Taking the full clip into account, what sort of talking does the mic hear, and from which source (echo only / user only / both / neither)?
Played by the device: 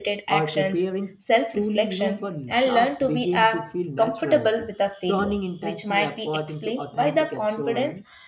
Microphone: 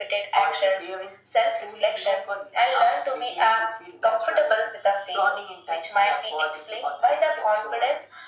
echo only